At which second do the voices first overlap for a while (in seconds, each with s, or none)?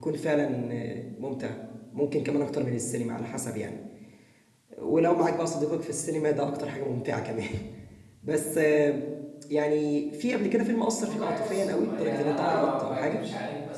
11.0 s